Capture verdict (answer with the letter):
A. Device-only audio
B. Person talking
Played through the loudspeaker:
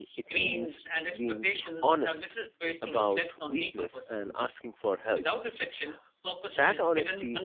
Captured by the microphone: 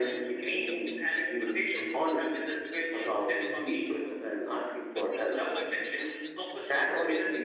B